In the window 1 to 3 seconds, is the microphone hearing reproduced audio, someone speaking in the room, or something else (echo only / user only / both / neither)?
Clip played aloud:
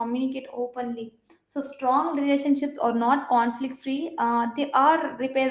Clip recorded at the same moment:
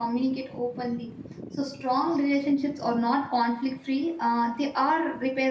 echo only